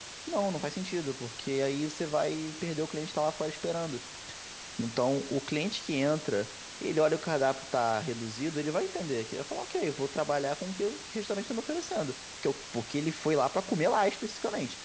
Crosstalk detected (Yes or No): No